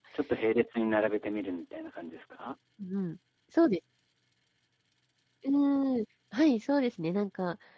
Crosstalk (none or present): none